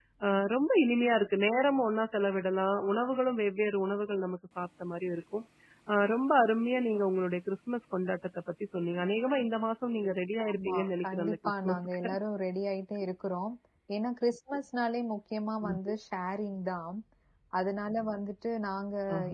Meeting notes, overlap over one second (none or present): present